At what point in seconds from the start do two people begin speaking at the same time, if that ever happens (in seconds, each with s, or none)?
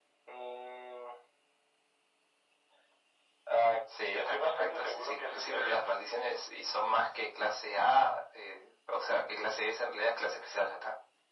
4.1 s